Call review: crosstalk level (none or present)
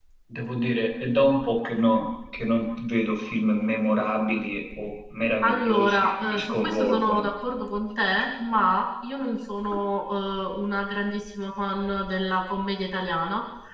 present